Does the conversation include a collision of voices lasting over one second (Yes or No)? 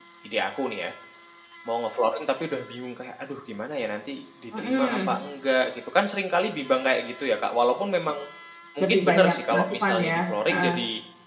Yes